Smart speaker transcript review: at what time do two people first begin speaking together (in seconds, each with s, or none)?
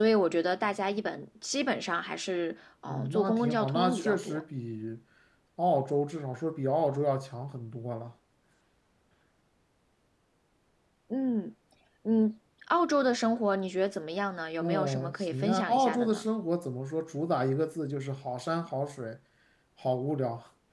2.9 s